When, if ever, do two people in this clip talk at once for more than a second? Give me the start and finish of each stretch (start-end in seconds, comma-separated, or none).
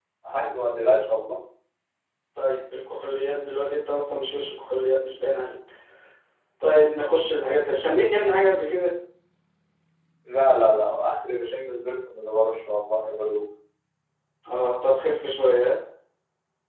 none